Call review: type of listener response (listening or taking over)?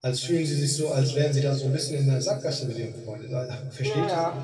taking over